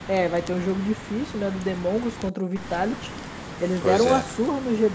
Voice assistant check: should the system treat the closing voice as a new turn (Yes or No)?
No